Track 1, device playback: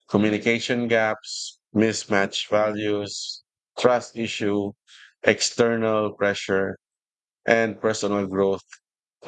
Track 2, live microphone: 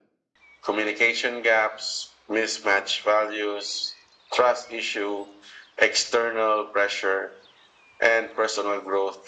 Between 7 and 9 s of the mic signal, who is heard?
echo only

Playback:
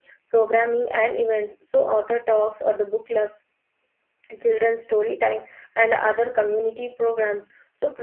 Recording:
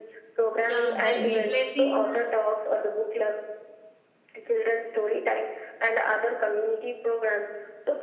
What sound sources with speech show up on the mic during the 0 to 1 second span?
both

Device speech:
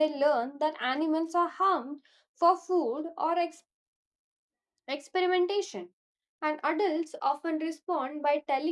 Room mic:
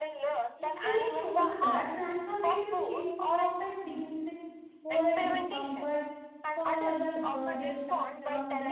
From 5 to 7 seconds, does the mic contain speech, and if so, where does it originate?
both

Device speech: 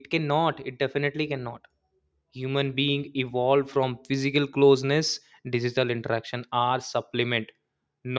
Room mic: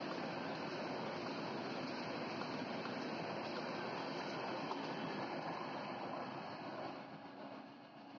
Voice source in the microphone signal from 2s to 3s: neither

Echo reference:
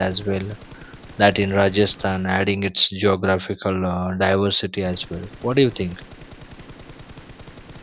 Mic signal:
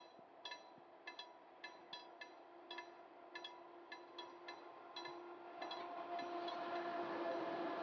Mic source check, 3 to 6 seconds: neither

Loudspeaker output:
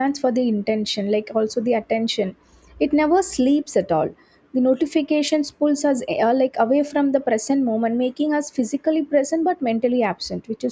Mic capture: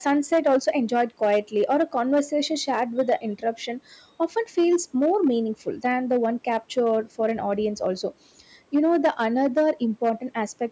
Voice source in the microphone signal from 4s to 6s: user only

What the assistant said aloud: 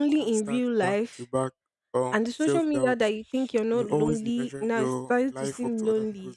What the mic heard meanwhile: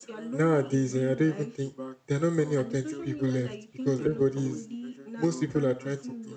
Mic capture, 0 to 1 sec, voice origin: both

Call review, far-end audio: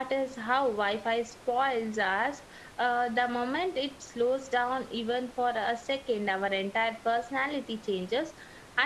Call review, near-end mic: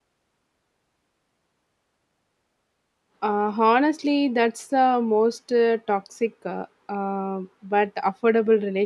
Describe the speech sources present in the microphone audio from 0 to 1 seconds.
neither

